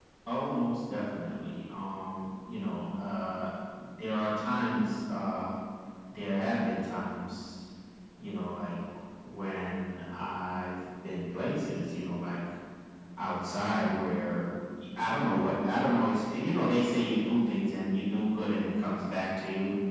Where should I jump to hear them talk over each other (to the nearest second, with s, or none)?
none